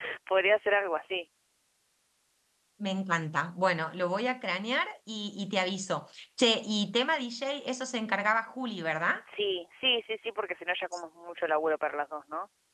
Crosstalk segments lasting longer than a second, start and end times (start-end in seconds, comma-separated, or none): none